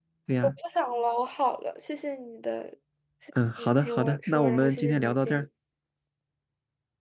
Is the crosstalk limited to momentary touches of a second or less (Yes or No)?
No